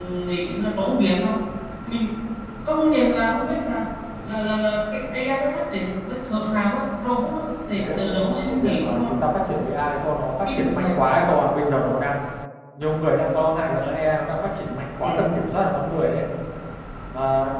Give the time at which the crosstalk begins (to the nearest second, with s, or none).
8 s